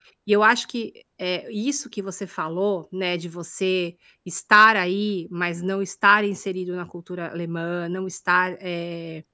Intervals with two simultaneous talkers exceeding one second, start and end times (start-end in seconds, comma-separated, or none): none